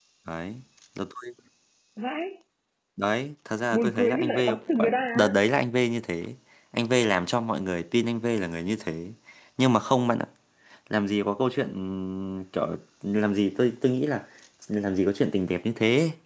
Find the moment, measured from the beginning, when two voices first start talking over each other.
3.7 s

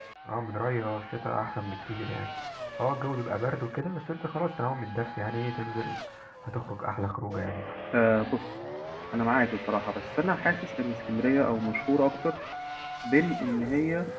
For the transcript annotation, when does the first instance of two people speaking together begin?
none

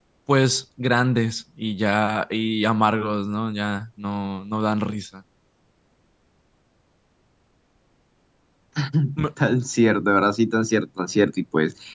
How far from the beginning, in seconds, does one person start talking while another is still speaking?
none

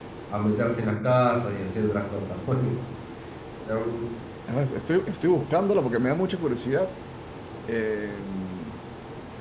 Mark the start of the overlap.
none

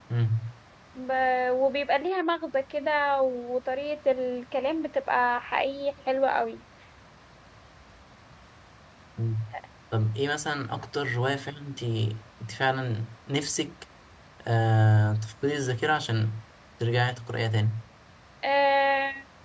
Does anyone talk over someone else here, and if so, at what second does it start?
none

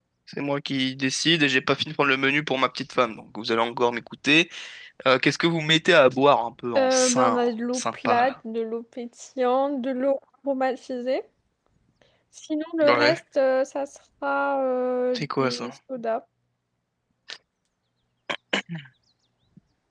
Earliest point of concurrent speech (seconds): 6.8 s

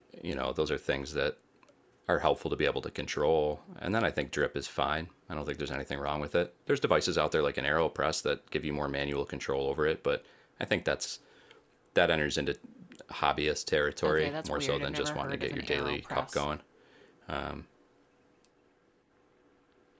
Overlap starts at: 14.0 s

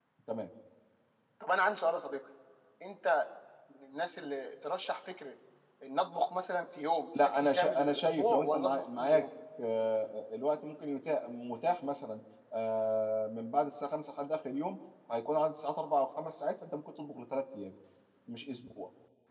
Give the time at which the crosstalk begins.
7.2 s

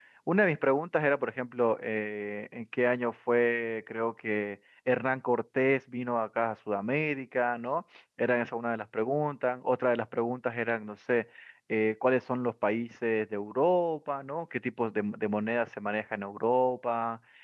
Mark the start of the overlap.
none

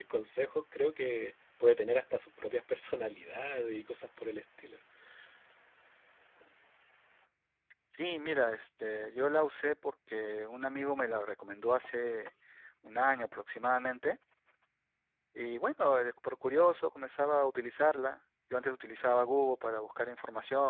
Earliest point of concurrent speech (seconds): none

